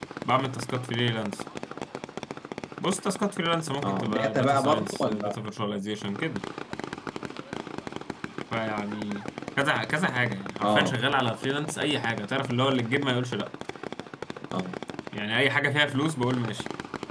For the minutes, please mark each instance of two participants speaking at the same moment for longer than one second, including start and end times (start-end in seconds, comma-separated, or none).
3.8-5.4